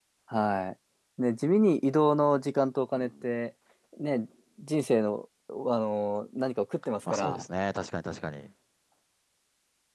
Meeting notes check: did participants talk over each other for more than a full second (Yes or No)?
No